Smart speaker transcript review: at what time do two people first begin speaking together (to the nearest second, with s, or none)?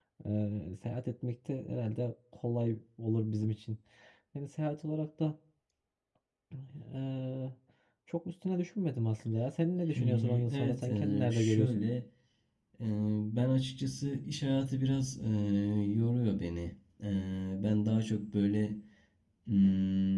10 s